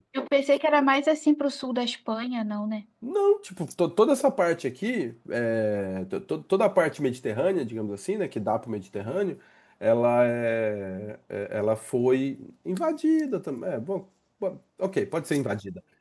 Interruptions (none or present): none